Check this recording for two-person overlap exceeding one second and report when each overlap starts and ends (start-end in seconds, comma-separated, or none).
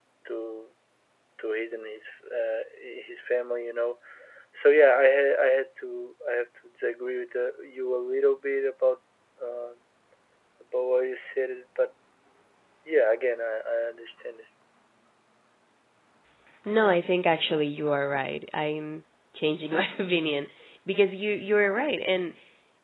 none